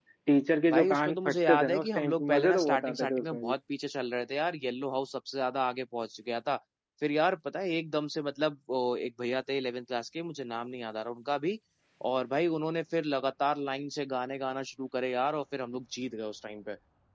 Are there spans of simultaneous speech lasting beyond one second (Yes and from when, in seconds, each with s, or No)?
Yes, from 0.7 s